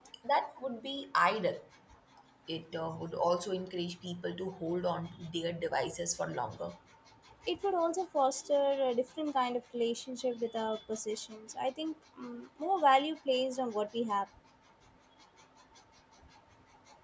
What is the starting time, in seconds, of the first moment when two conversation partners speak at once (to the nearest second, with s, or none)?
none